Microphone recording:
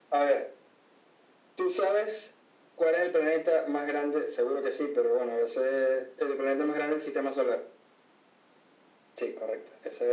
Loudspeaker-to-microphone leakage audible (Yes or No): Yes